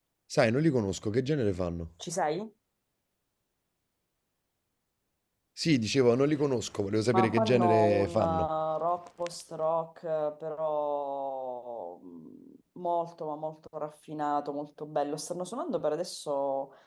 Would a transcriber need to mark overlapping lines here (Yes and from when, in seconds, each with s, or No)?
Yes, from 7.1 s